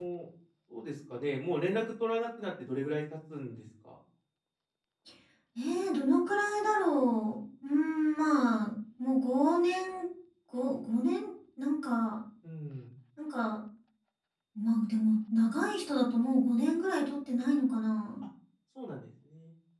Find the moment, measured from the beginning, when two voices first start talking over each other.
none

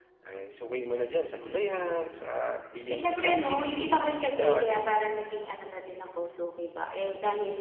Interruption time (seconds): 2.9 s

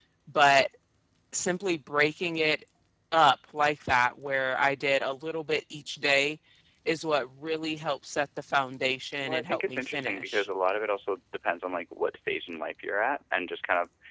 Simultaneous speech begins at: 9.2 s

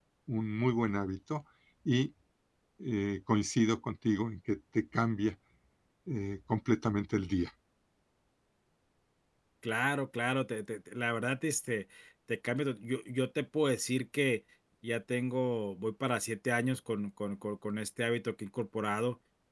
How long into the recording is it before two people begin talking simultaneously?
none

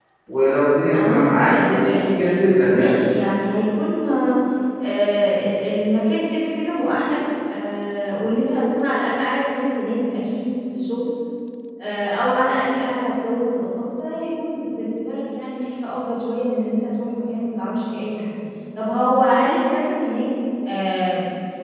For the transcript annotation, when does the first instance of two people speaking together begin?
0.9 s

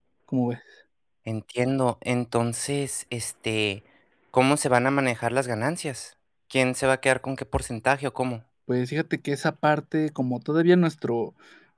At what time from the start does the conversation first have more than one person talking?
none

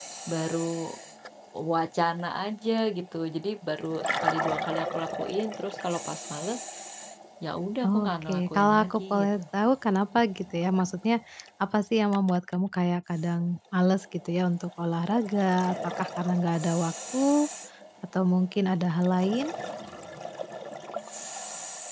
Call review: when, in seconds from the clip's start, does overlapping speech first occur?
7.8 s

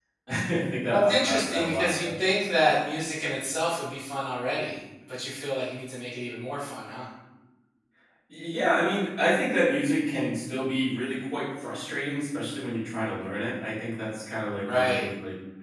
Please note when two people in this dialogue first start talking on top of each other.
0.9 s

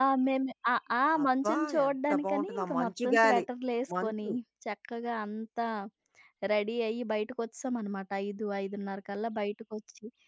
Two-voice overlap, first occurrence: 1.2 s

